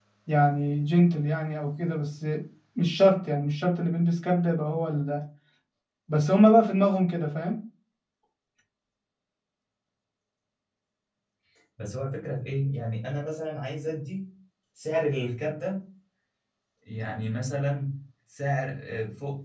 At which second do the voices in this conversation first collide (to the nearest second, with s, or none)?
none